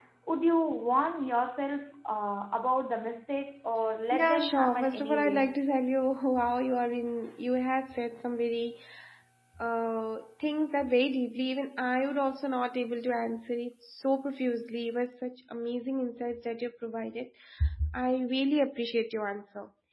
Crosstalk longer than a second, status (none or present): present